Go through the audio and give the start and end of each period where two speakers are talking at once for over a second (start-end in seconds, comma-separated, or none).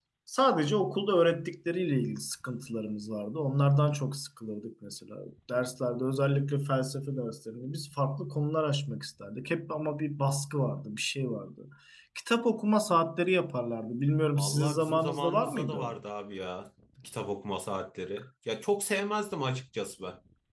14.4-15.9